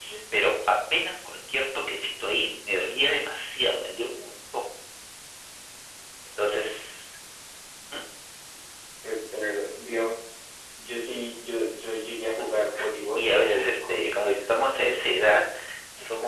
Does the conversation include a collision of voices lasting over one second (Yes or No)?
Yes